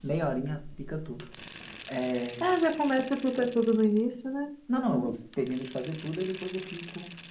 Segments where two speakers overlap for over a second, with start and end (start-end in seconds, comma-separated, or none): none